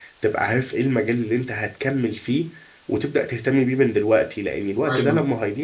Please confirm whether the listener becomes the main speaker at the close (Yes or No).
No